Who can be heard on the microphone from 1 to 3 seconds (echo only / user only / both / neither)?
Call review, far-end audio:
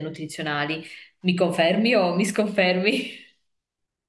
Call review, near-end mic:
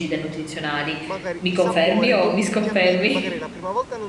both